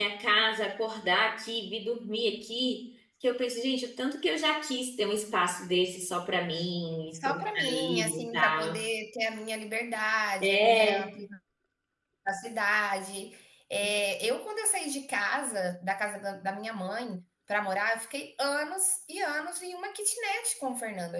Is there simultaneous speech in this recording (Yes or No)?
Yes